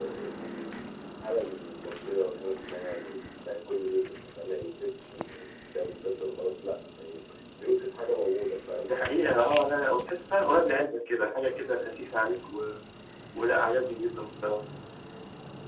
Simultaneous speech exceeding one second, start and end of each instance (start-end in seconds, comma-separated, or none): none